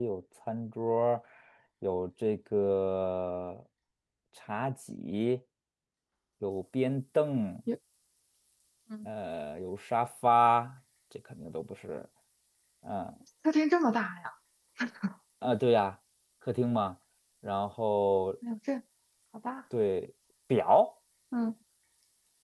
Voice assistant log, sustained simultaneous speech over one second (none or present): none